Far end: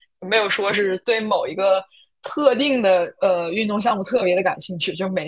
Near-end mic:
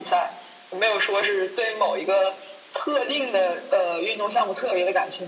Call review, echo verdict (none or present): present